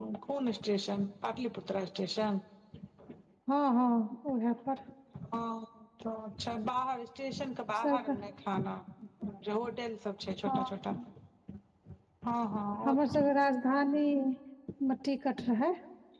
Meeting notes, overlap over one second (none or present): none